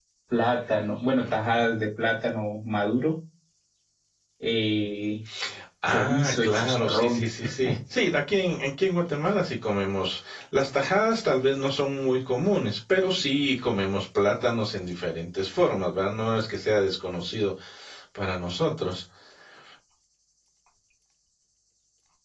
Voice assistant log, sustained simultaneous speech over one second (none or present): present